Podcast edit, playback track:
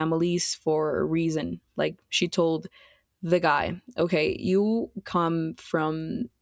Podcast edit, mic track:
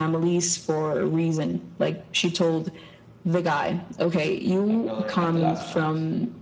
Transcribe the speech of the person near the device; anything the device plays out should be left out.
my brother and i'm the last one

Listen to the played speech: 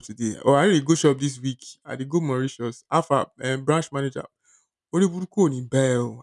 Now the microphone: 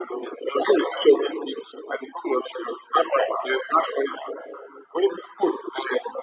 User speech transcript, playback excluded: none

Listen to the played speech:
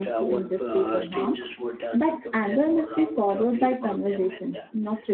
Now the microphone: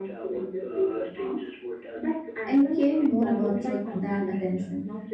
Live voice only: and caring more about truth than attention.

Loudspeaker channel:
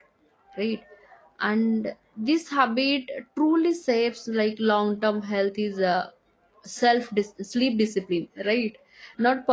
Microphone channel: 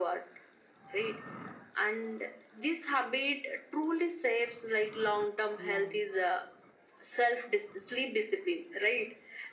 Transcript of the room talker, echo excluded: yeah

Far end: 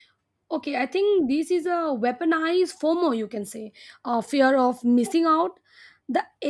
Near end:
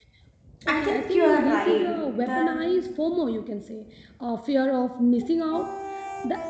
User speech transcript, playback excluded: I think you are right that

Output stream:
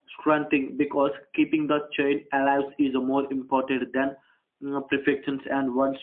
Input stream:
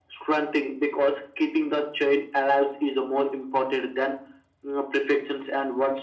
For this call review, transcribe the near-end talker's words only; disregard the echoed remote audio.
none

